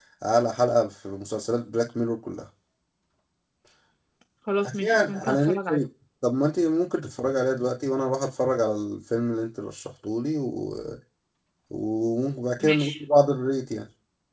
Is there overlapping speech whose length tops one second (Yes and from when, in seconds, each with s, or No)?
Yes, from 4.6 s